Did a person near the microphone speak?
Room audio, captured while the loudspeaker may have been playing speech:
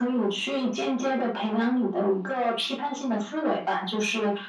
No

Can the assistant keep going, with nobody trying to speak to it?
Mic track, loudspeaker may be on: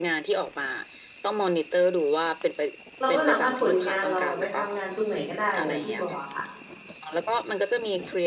No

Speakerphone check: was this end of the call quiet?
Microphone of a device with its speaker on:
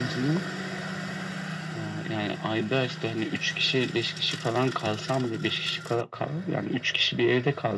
Yes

